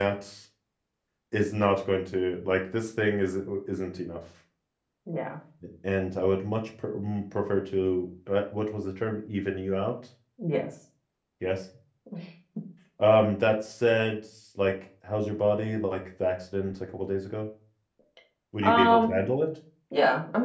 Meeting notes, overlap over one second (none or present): none